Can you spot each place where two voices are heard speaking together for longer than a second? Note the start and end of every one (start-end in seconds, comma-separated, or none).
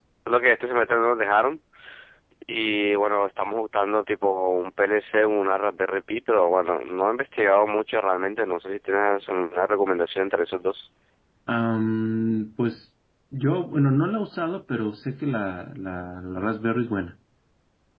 none